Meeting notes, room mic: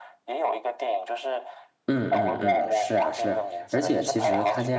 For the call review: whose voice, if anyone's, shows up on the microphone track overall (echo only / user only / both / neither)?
both